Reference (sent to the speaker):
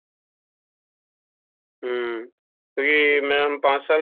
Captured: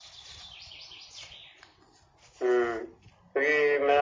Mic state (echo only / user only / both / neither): echo only